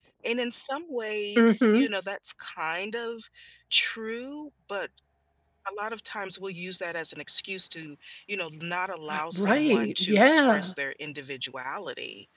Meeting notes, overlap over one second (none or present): present